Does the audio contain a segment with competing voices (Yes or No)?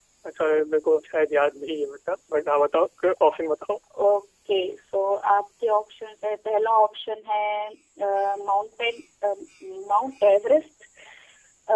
No